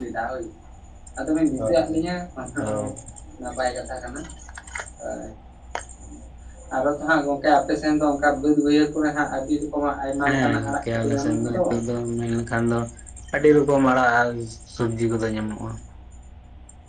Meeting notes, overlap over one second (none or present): present